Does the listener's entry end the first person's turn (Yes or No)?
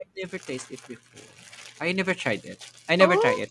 Yes